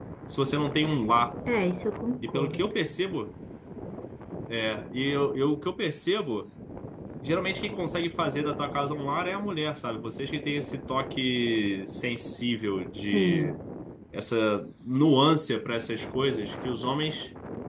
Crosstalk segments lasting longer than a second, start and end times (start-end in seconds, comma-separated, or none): none